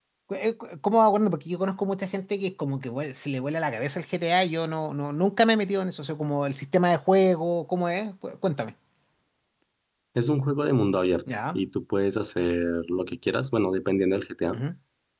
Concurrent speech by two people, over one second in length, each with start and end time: none

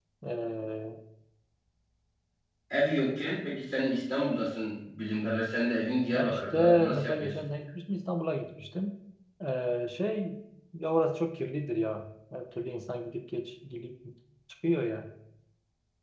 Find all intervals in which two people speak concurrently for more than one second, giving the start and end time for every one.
6.1-7.5

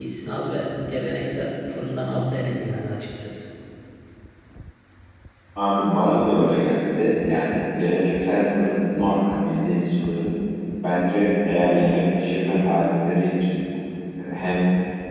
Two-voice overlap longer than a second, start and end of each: none

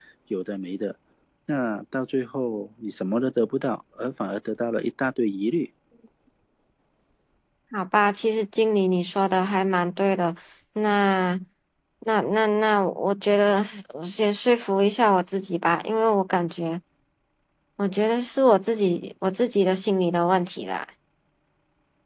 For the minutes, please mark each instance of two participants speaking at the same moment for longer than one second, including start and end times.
none

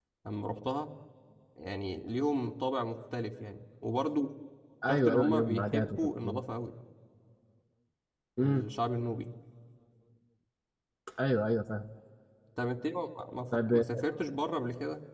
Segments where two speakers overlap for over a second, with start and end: 4.9-6.4

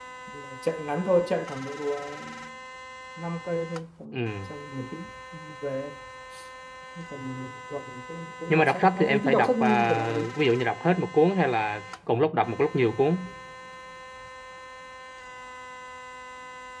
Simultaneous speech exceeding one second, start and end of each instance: 8.5-10.3

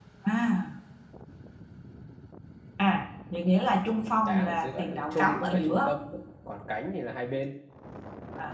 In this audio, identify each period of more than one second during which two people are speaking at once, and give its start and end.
3.9-5.9

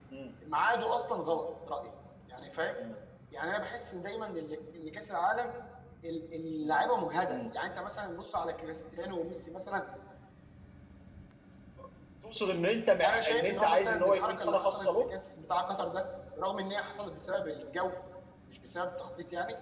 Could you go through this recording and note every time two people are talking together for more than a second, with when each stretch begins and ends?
13.1-14.9

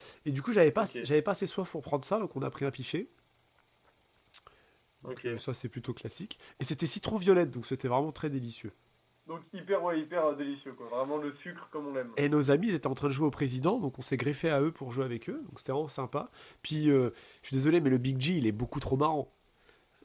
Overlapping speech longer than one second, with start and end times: none

